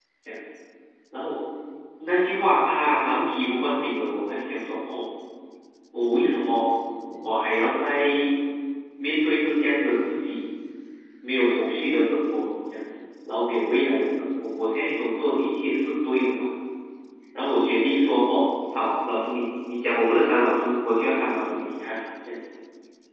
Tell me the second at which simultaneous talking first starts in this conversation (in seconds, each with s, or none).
none